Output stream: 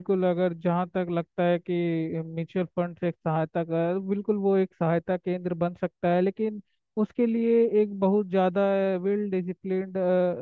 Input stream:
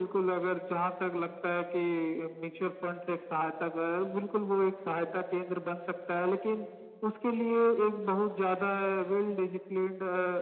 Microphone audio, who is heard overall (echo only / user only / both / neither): echo only